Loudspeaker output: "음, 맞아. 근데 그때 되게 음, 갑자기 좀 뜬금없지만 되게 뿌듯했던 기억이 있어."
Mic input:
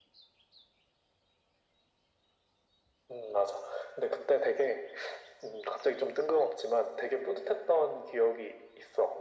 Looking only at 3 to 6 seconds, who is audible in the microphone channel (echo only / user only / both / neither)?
echo only